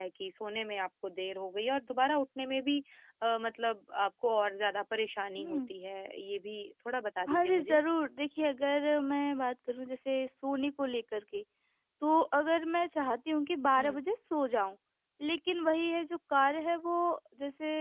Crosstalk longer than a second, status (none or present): none